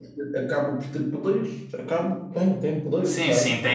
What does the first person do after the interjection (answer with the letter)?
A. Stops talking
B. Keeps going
A